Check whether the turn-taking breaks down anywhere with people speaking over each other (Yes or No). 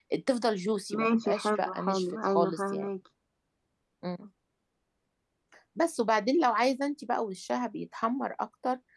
Yes